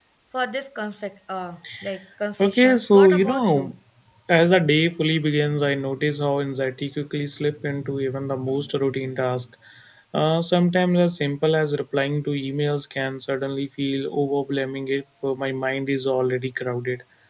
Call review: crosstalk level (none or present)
present